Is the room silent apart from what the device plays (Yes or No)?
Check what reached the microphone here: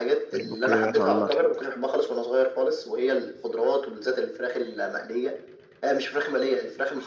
No